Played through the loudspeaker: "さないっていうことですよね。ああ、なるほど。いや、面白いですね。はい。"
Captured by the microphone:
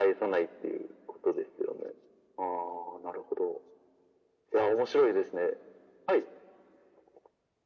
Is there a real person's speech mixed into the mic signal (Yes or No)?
No